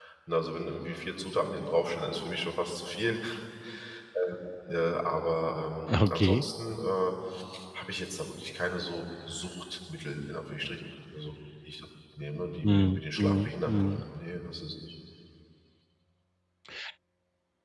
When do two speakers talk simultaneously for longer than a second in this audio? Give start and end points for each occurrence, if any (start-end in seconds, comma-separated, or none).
12.6-14.0